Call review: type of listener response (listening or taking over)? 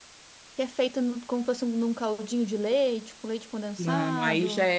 taking over